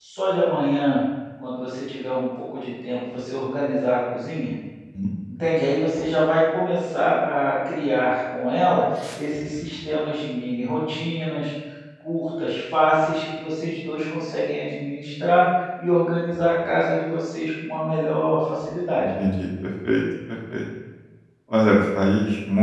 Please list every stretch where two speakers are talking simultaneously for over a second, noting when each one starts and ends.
none

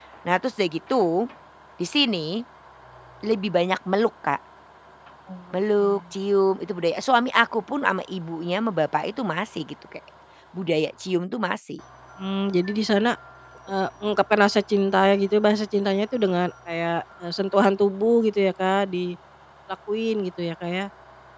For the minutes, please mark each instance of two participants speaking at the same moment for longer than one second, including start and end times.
none

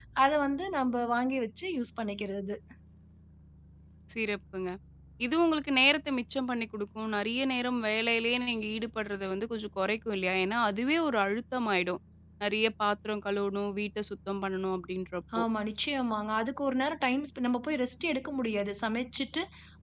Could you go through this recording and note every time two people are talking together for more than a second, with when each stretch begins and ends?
none

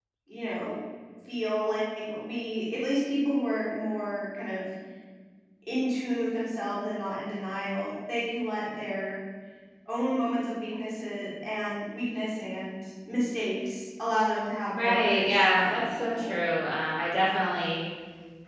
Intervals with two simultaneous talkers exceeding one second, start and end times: 14.7-16.3

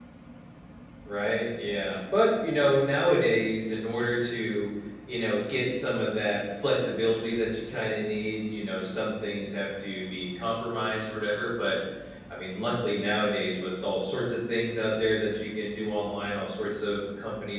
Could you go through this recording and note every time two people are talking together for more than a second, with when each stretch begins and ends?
none

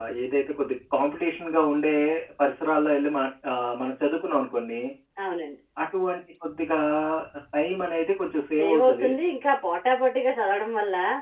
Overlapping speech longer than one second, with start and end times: none

